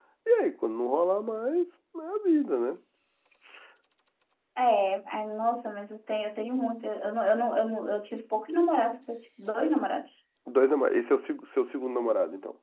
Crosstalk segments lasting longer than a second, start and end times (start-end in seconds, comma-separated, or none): none